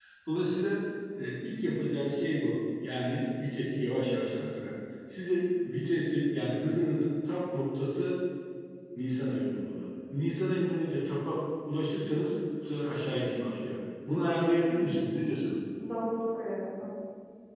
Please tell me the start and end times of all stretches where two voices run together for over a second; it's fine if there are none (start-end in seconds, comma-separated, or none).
none